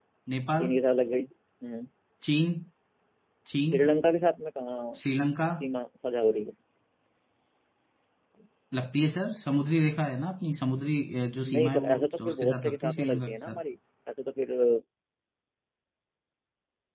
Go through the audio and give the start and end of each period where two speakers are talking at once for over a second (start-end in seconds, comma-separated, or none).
11.5-13.6